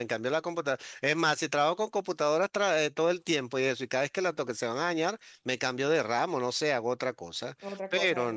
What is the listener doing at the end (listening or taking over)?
listening